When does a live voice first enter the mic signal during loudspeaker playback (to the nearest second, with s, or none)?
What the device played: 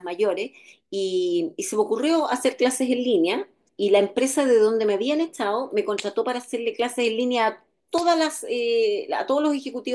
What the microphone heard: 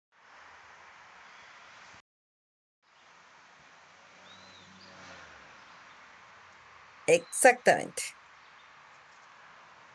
7 s